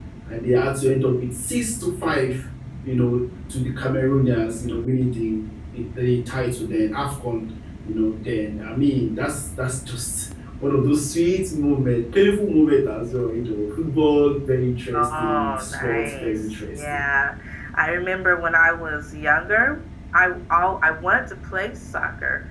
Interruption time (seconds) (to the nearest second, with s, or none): 15 s